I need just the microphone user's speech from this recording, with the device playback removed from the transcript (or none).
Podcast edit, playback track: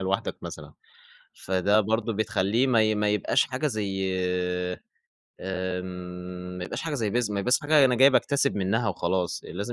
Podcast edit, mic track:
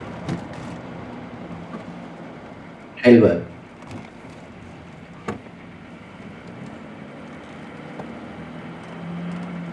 حلوة أوي.